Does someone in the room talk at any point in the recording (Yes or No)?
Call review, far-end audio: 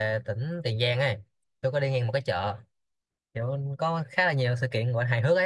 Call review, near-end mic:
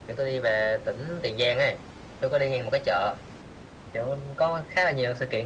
No